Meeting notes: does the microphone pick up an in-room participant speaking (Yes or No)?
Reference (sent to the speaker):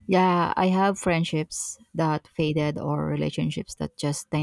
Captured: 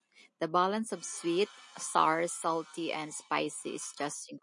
Yes